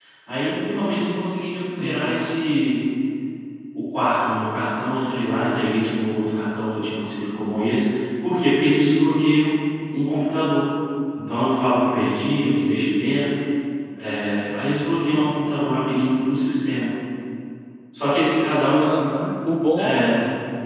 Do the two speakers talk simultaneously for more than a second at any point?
No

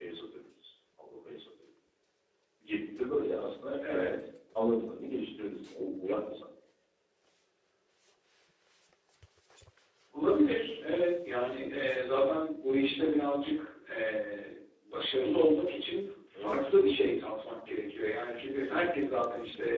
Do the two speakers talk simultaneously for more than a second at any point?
No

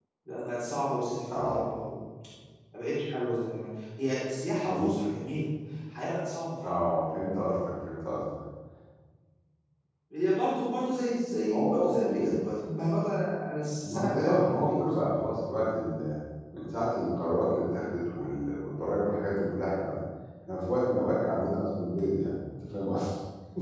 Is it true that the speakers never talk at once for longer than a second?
No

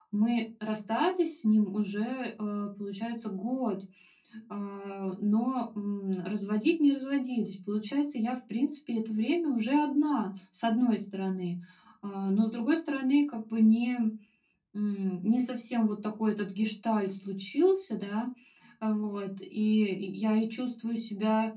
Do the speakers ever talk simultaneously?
No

